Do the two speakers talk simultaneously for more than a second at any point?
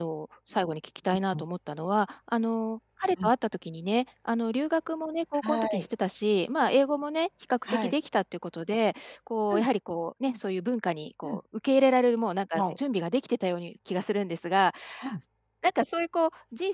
No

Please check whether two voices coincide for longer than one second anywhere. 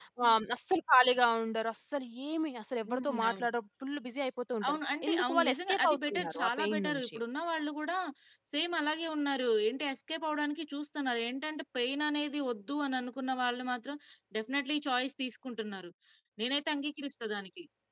Yes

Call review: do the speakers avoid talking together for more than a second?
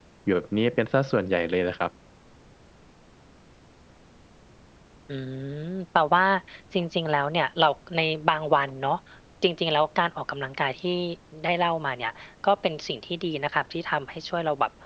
Yes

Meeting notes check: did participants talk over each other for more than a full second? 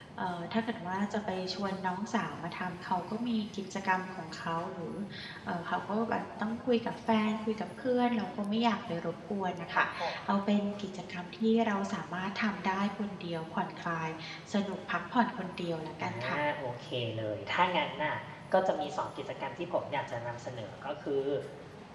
No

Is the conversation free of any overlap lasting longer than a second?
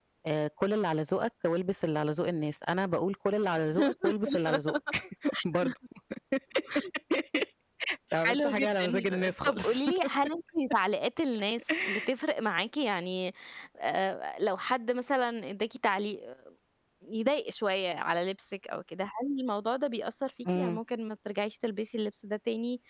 No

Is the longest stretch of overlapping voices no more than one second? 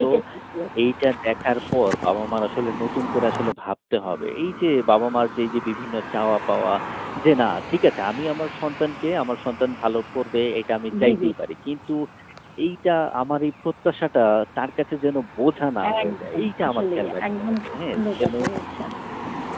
No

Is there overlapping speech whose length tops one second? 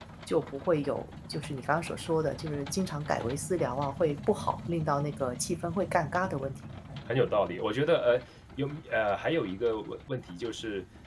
No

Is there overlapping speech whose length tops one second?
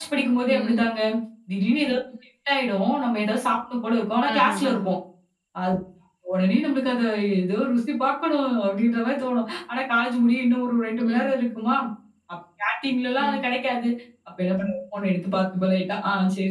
No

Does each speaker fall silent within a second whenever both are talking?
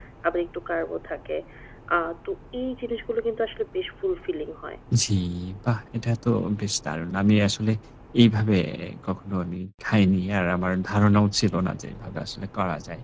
Yes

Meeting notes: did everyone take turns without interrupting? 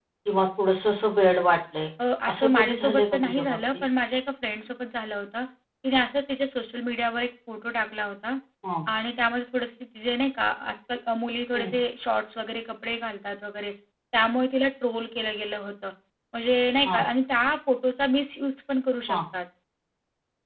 No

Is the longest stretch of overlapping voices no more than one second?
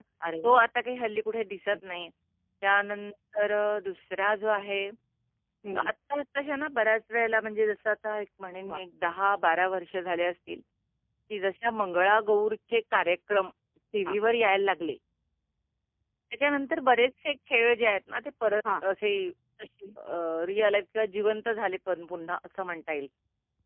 Yes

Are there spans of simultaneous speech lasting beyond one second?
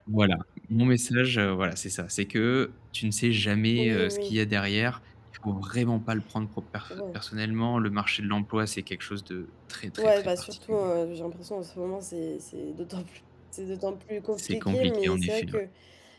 Yes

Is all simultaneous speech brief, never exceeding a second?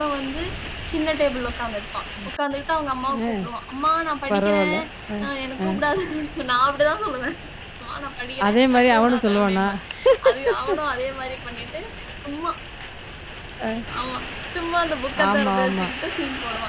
No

